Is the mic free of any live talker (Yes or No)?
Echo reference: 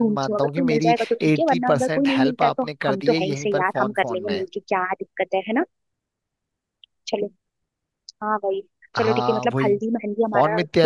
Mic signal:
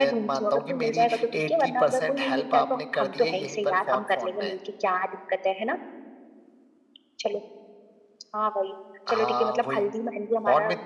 Yes